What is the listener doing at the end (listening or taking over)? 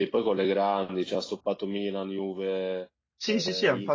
taking over